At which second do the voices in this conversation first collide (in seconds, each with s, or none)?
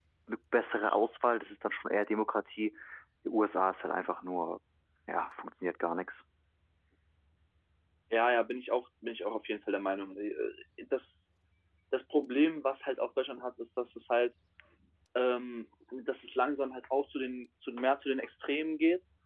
none